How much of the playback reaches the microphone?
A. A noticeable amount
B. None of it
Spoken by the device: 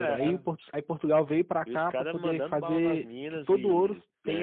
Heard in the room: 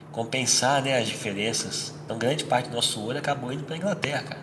B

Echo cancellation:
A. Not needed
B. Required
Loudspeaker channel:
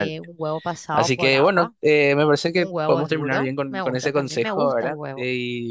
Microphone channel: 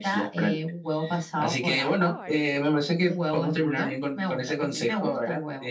B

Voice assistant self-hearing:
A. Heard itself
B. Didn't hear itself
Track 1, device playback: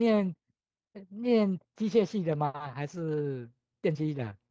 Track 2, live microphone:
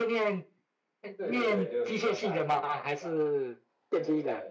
A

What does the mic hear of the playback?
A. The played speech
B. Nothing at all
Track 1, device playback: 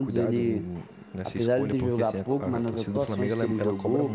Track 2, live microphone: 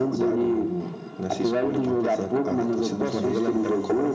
A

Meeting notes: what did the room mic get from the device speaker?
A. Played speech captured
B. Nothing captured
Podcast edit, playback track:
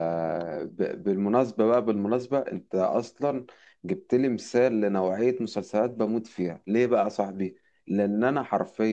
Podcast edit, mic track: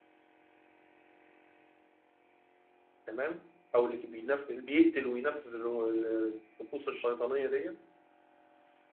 B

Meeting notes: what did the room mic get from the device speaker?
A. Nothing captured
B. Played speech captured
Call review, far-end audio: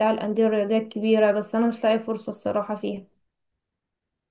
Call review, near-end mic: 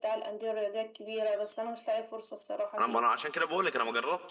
B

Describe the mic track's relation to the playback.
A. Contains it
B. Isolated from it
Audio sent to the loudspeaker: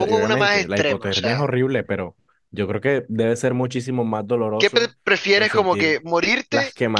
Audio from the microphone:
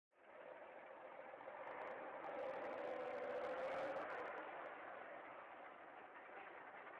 B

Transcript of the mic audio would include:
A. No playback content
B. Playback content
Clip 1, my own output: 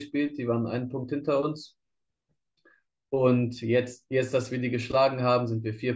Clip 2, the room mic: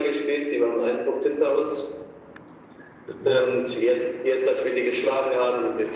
B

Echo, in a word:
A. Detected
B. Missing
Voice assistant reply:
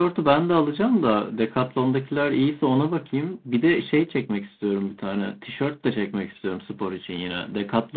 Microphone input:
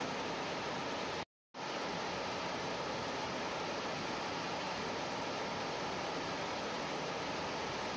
B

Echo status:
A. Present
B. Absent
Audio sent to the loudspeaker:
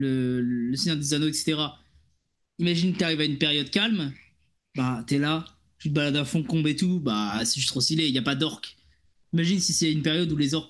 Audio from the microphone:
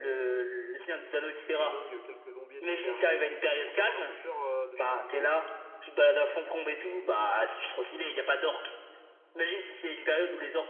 A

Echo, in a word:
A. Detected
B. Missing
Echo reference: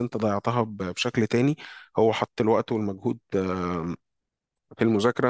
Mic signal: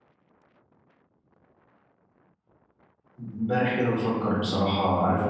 B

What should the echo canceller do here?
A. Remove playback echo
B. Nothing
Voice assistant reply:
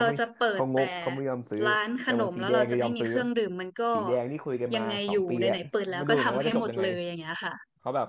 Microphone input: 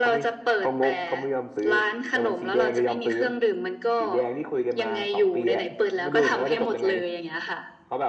A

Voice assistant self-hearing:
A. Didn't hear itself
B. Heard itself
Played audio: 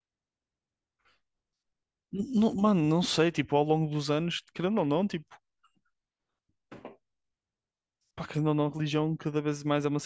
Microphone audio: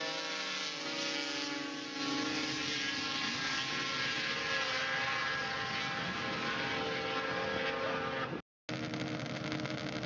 A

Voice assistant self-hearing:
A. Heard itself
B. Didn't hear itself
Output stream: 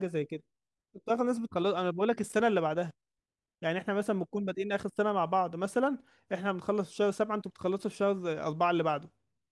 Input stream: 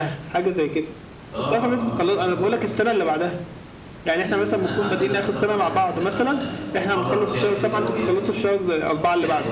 A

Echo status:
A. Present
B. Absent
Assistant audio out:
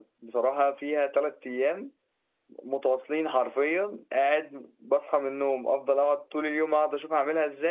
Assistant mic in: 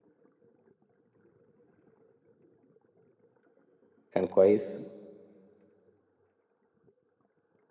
B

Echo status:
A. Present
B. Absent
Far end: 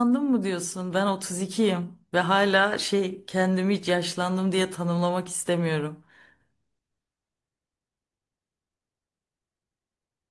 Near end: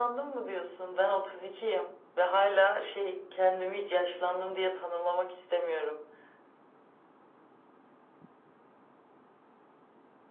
A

